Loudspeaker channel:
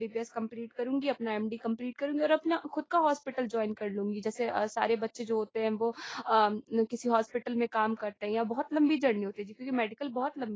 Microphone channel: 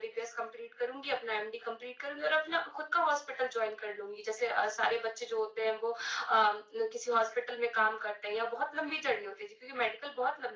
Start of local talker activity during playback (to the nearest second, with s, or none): none